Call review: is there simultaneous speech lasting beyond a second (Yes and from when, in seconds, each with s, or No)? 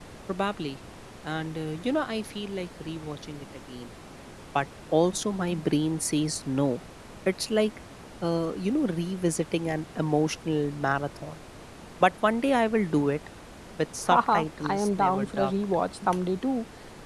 Yes, from 14.1 s